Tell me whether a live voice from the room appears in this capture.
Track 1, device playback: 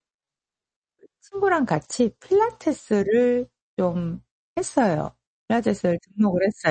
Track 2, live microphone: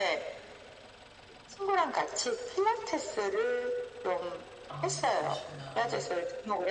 Yes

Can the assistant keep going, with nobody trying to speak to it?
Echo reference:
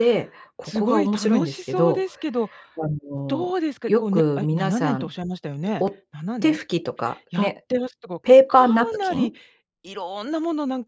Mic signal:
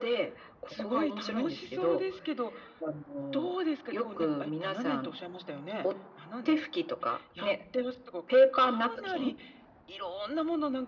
Yes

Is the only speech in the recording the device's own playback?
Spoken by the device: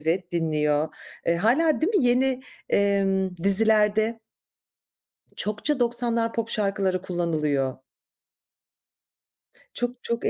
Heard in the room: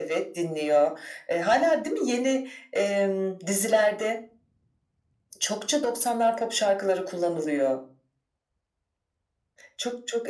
Yes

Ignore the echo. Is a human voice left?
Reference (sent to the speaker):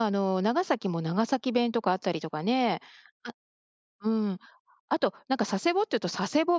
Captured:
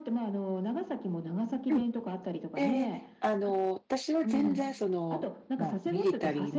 Yes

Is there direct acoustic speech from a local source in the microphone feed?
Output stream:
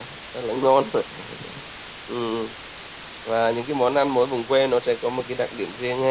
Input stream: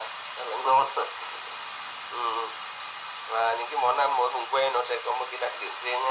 No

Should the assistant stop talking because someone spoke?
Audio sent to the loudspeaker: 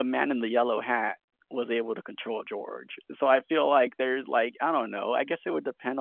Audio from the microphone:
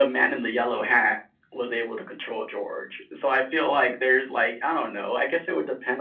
No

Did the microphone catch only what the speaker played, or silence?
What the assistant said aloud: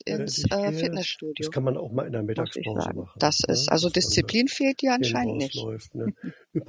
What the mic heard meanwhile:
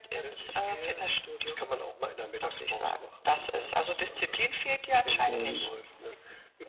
No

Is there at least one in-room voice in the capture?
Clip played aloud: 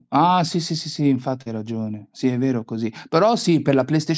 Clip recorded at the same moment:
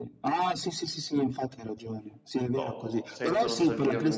Yes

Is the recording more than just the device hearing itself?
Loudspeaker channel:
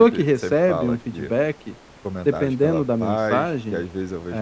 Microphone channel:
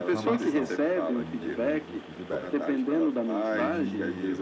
Yes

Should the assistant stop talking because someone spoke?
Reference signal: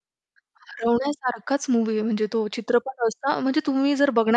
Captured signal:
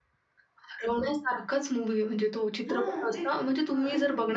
Yes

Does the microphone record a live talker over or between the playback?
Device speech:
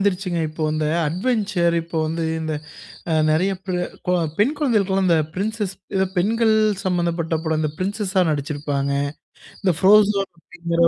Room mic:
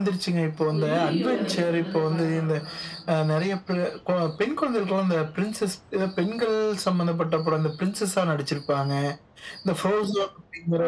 Yes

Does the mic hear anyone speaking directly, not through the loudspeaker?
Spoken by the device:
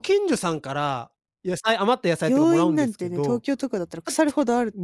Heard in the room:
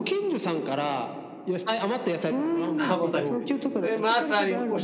Yes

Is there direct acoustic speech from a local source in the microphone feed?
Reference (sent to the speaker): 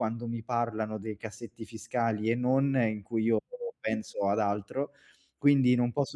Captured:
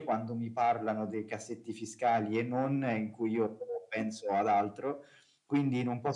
No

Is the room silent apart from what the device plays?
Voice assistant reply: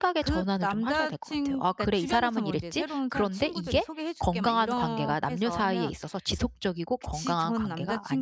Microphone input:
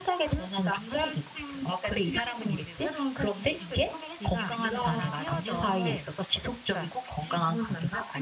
No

